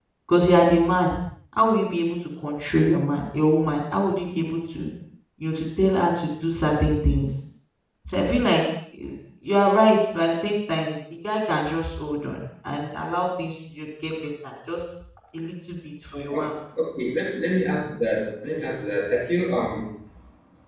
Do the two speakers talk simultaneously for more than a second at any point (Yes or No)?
No